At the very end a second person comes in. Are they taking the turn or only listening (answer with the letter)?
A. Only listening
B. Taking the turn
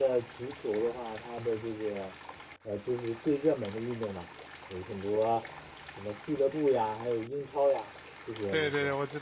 B